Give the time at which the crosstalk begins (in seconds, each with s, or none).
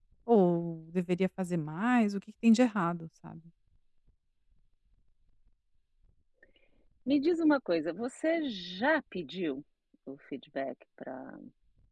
none